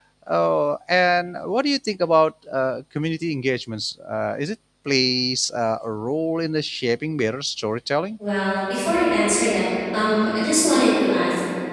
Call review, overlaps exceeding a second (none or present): none